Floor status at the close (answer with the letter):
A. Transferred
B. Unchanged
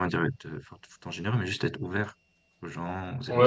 A